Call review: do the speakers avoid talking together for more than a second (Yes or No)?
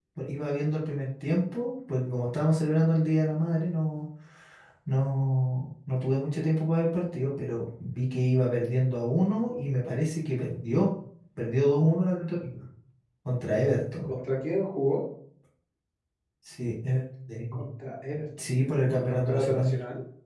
No